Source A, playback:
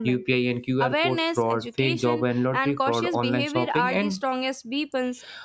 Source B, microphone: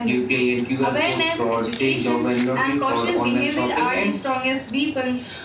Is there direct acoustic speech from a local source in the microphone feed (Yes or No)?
No